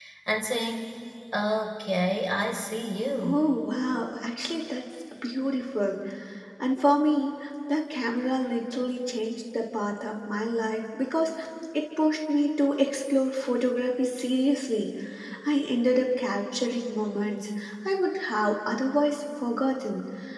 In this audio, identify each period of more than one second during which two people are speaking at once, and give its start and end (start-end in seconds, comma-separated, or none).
none